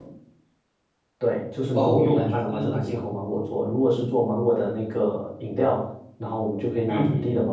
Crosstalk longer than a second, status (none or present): present